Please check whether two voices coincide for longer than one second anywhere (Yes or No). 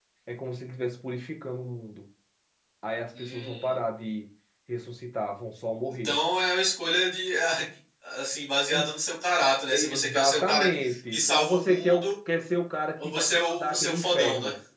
Yes